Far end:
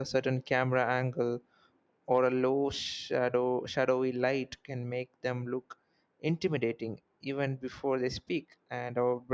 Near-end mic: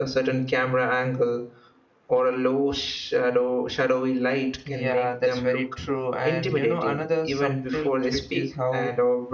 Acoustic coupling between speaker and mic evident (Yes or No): Yes